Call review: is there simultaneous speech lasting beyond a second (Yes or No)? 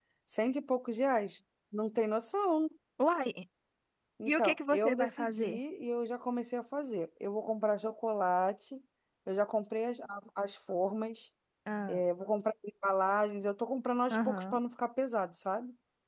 Yes